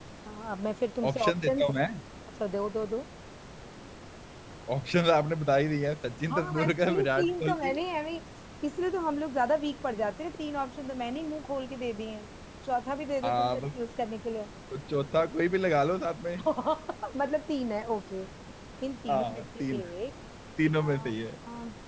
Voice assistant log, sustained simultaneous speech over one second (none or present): present